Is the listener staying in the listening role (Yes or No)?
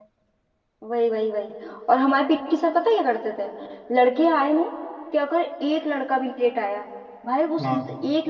Yes